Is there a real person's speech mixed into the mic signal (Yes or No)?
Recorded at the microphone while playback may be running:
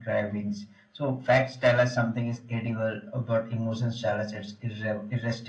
No